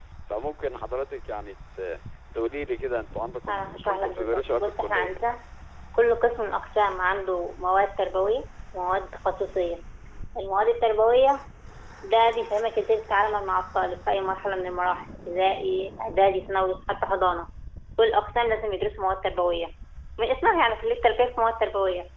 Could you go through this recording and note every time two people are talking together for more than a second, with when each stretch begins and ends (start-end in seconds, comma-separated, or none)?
3.5-5.1